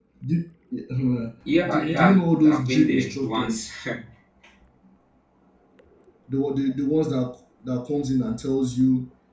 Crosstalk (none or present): present